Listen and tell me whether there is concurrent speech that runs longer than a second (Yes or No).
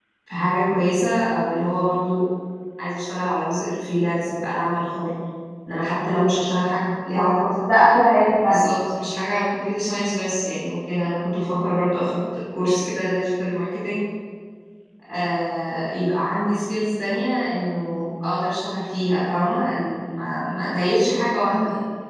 No